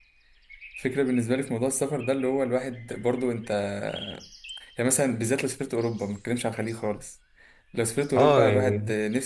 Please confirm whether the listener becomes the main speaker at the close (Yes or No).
No